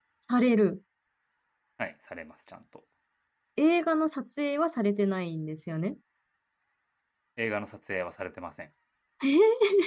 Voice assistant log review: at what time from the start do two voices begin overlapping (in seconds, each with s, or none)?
none